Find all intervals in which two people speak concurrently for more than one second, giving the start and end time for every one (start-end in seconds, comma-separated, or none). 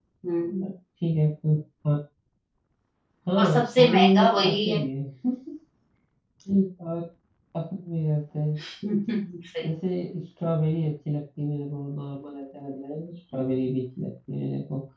3.4-4.8